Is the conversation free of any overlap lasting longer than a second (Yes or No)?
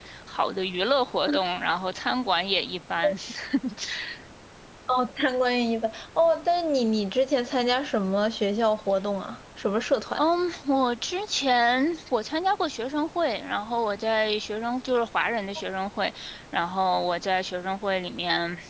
Yes